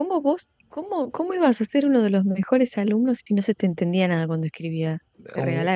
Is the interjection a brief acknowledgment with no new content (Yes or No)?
No